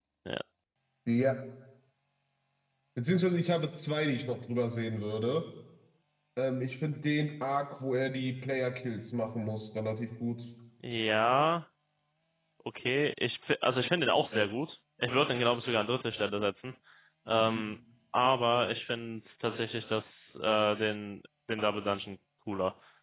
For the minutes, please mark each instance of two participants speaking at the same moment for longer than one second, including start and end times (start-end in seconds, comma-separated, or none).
none